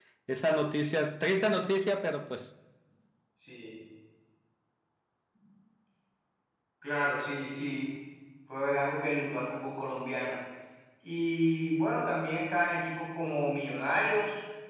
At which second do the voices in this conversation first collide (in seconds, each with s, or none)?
none